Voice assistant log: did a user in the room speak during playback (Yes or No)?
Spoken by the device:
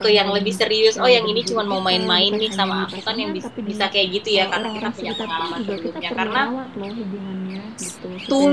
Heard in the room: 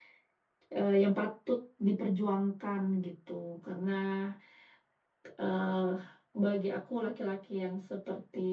Yes